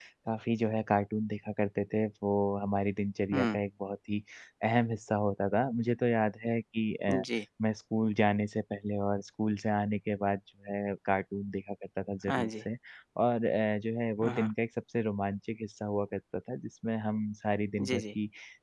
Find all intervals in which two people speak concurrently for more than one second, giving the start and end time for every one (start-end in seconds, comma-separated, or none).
none